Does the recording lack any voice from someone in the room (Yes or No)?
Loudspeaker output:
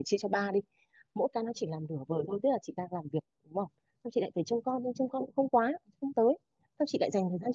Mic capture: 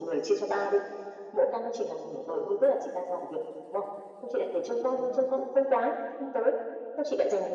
No